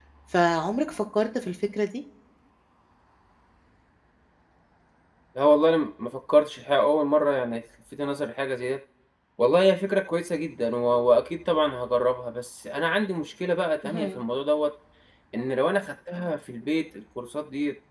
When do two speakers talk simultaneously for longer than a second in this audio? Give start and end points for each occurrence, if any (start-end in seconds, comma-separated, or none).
none